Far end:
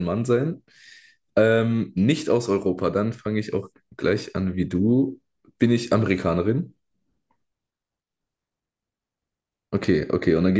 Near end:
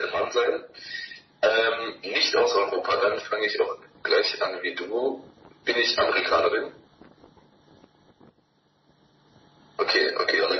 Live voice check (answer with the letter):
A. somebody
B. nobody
B